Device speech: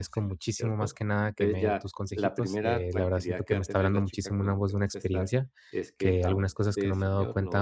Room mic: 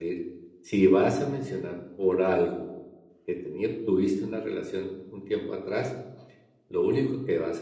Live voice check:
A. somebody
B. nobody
A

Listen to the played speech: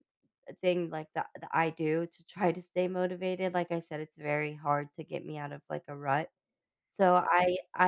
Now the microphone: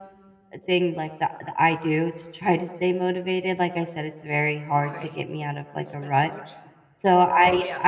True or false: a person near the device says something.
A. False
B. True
B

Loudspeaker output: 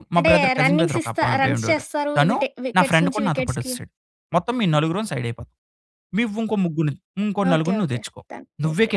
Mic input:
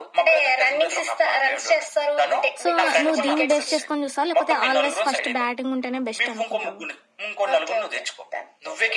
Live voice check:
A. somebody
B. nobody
A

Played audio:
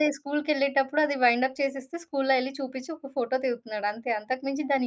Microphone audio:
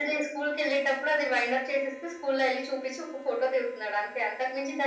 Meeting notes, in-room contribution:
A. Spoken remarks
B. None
B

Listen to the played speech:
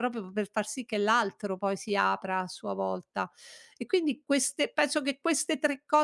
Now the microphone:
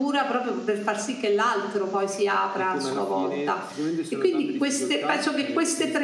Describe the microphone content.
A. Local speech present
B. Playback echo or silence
A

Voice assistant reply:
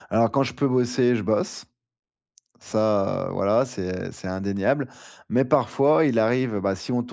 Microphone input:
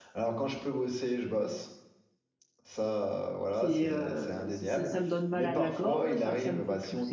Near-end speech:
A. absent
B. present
B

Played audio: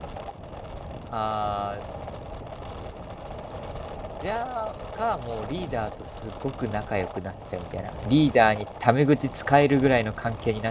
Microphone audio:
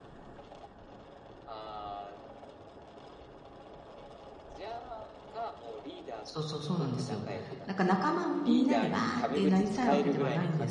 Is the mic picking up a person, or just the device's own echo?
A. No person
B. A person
B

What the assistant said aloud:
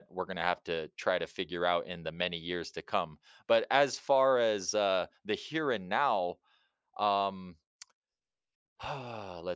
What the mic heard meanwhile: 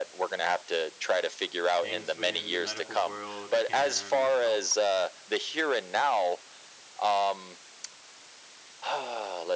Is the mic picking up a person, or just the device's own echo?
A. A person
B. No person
A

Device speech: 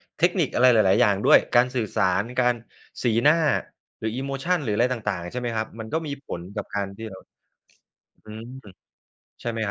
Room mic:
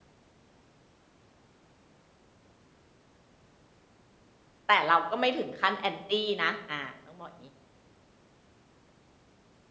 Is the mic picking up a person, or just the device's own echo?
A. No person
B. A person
B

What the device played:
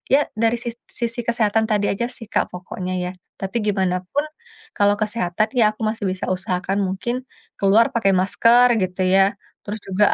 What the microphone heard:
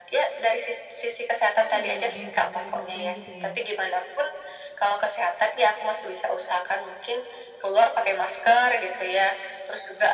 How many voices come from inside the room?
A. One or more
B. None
A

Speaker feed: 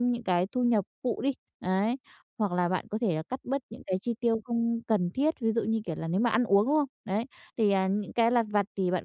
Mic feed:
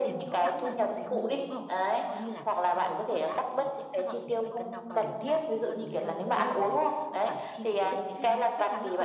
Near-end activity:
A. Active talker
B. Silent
A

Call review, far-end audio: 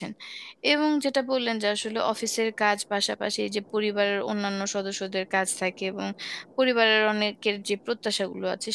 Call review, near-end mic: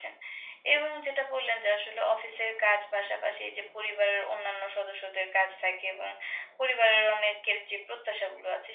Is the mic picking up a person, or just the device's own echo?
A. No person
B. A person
A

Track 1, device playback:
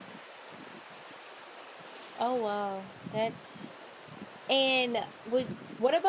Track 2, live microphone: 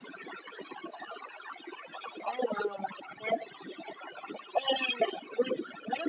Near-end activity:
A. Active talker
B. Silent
B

